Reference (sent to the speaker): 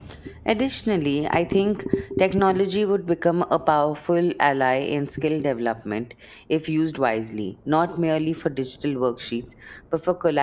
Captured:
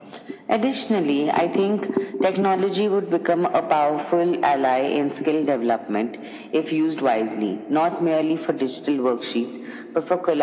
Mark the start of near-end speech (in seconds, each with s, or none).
none